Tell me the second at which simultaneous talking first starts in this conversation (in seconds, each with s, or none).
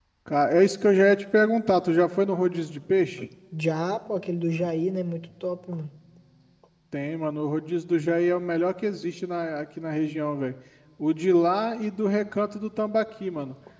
none